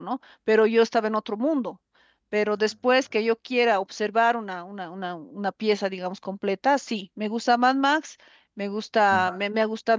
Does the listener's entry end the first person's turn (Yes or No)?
No